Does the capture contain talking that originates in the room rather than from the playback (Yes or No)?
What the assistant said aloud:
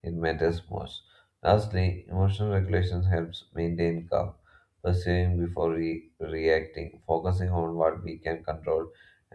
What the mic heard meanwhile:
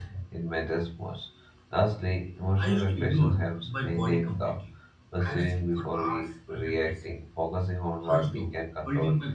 Yes